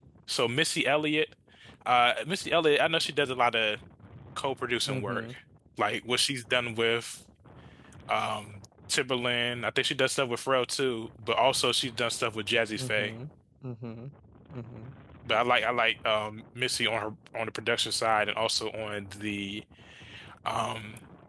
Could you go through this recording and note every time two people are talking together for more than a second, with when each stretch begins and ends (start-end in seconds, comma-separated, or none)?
none